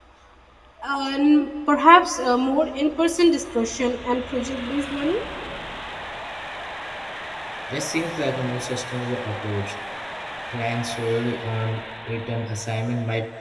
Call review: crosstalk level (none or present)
none